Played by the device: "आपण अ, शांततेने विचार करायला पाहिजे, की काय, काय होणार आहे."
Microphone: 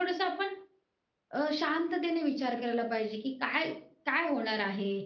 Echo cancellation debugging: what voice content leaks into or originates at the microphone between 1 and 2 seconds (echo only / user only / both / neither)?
echo only